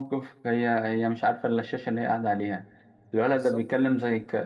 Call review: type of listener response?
listening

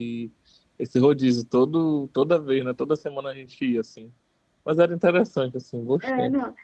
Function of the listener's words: taking over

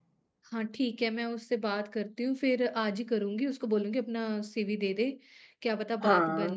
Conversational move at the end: listening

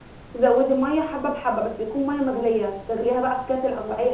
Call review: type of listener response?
taking over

